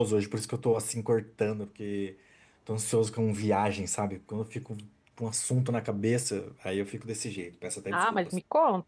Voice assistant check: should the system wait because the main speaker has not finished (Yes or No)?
No